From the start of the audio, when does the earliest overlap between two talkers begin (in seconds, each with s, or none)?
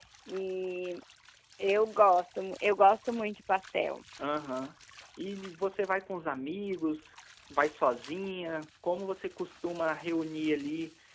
none